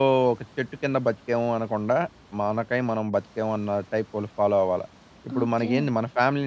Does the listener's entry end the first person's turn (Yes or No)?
No